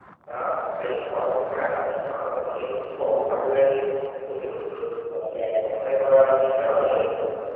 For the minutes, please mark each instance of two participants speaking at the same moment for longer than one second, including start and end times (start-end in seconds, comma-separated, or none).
5.6-6.9